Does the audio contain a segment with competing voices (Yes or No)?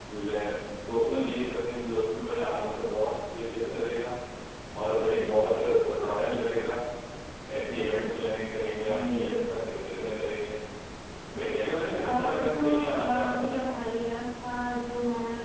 Yes